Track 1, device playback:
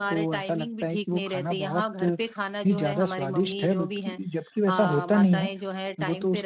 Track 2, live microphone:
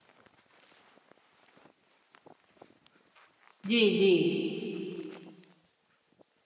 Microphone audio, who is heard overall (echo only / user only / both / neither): user only